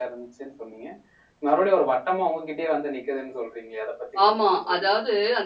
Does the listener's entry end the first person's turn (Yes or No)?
Yes